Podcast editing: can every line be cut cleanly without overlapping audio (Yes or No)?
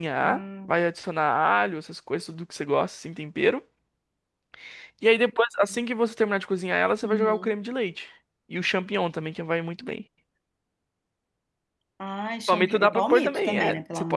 No